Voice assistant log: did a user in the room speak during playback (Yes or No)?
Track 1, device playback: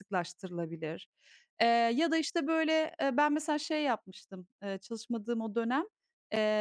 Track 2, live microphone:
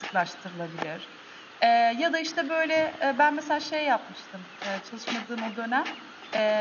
No